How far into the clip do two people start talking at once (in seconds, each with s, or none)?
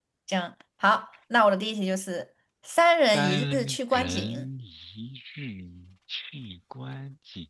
3.1 s